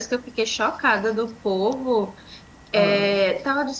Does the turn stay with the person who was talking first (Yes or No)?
Yes